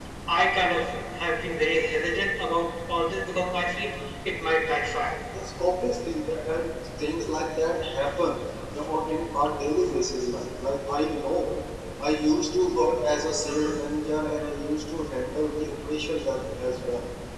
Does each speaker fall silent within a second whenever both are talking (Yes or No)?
Yes